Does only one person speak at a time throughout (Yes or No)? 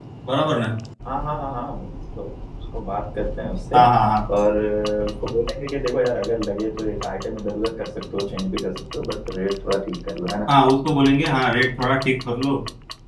Yes